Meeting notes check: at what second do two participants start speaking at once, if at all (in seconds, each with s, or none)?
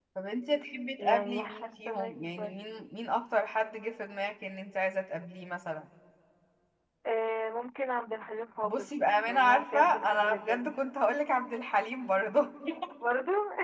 1.0 s